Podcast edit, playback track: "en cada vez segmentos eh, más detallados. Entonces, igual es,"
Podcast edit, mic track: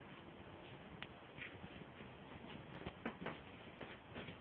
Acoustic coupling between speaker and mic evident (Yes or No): No